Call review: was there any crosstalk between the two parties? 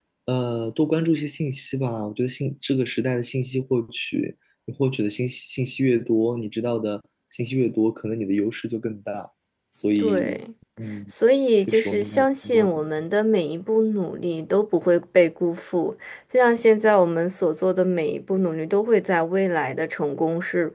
Yes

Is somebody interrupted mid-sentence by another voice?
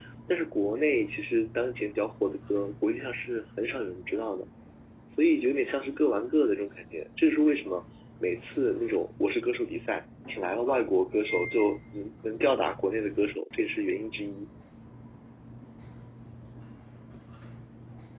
No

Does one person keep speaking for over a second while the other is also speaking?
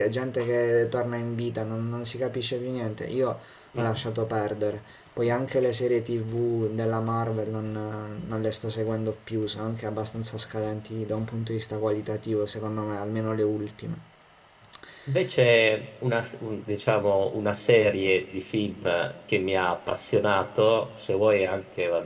No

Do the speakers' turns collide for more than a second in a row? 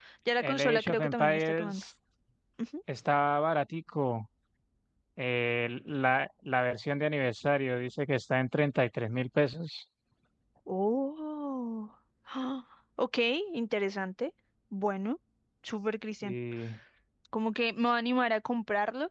Yes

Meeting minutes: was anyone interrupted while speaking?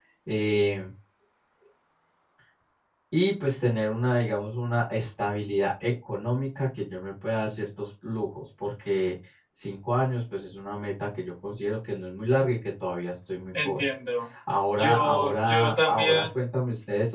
Yes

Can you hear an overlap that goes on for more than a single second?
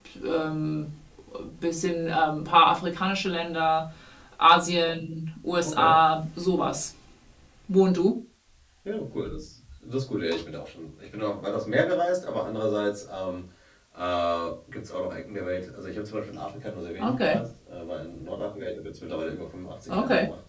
No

